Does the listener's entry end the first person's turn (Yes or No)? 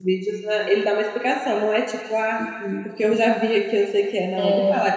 No